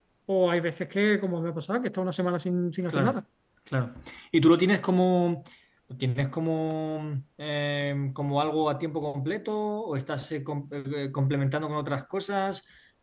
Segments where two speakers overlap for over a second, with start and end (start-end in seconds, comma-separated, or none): none